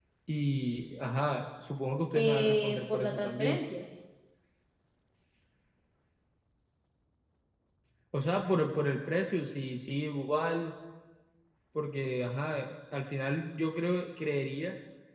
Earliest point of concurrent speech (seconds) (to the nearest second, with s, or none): 2 s